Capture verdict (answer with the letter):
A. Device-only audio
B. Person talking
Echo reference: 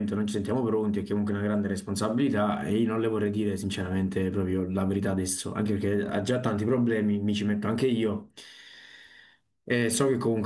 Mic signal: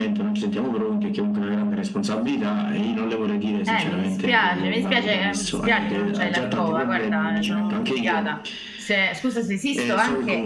B